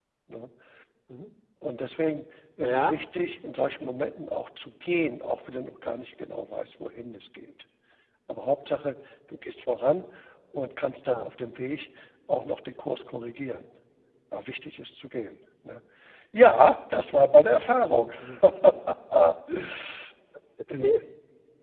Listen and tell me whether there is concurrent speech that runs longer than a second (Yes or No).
No